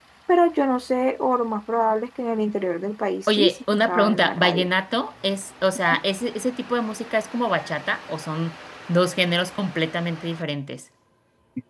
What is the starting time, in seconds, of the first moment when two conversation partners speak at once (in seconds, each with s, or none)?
3.3 s